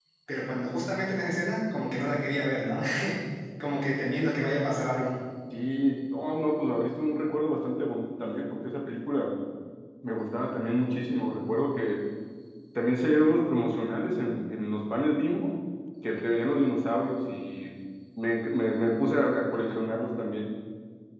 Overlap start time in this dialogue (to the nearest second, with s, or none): none